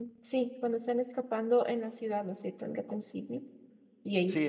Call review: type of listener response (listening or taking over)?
taking over